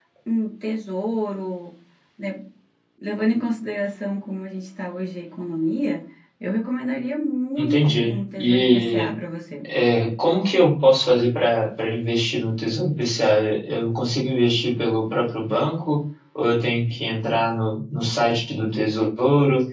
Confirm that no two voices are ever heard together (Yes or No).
No